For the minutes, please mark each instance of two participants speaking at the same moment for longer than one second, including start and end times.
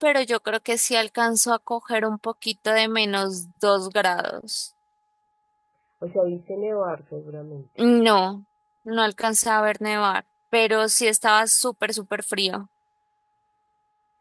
none

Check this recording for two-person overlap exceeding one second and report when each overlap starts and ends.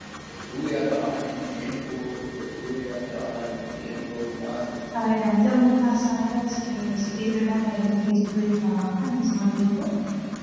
none

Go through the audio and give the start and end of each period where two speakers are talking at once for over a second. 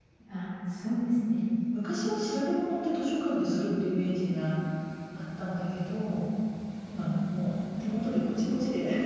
none

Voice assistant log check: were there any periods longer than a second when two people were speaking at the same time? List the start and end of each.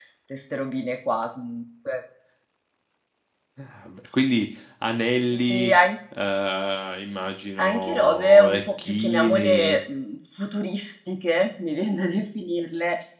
7.6-9.8

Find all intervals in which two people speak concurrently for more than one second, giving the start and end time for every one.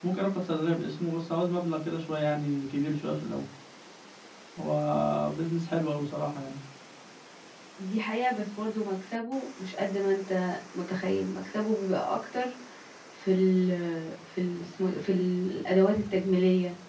none

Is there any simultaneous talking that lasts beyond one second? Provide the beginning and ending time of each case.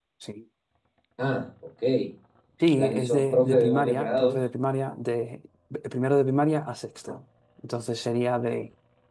2.8-4.4

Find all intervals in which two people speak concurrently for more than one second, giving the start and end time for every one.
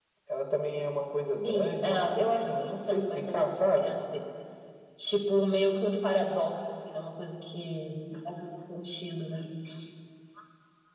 1.4-3.9

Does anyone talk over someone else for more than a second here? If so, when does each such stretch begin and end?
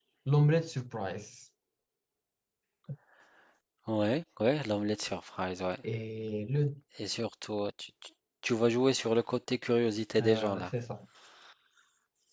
none

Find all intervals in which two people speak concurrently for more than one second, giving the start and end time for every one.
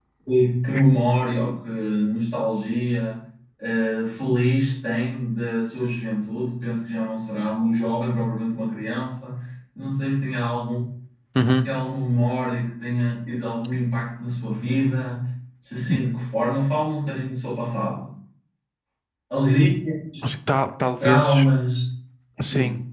none

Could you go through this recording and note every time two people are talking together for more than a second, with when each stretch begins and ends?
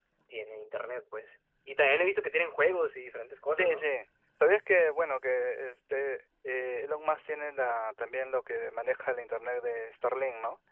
none

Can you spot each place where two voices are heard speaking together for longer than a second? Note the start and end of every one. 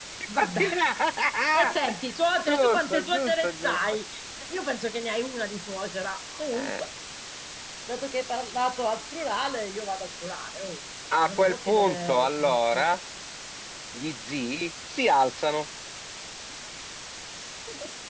2.5-3.8, 11.2-12.9

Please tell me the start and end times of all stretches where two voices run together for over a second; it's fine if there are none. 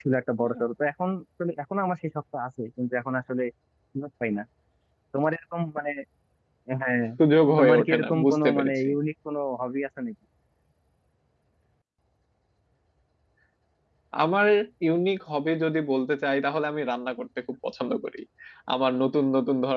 7.6-8.9

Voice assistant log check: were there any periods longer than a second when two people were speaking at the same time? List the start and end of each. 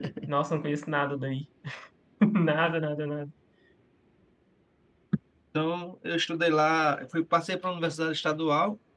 none

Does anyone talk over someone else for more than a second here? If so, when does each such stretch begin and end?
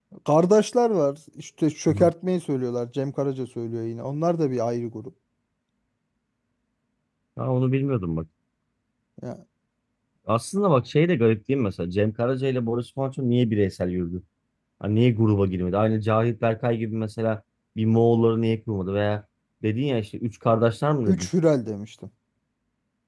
none

